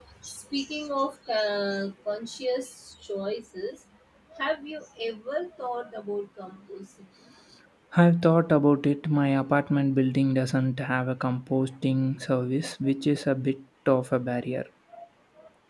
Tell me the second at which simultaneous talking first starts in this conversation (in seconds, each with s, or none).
none